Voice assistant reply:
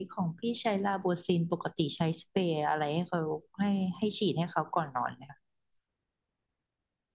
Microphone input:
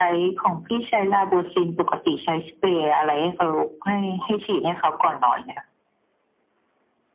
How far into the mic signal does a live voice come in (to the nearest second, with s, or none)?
none